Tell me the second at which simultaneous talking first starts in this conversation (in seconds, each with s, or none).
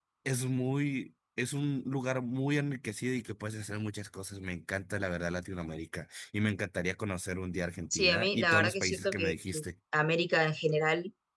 7.9 s